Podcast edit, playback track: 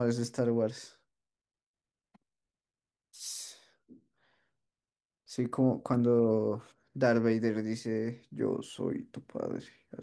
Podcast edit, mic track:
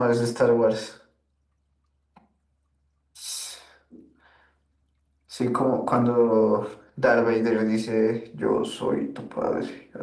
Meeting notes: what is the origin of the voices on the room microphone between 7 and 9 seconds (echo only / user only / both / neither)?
echo only